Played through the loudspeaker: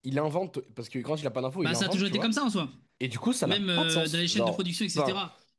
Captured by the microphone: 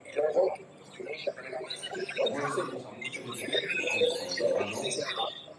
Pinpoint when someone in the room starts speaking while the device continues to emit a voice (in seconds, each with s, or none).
2.3 s